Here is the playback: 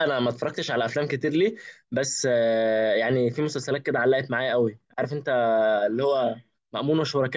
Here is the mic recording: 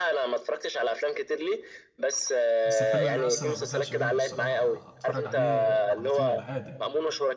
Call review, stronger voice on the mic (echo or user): echo